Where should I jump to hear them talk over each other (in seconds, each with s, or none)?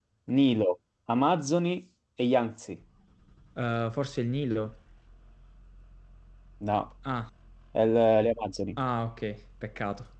none